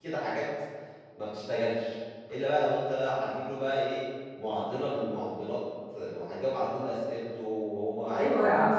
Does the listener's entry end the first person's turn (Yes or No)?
Yes